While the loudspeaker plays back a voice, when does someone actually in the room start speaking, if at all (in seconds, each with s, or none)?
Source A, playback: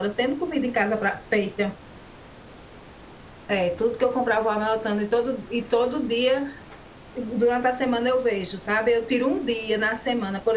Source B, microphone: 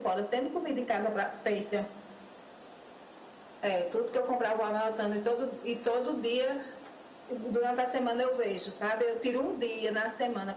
none